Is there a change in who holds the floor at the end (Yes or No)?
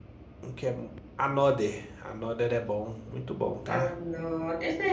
Yes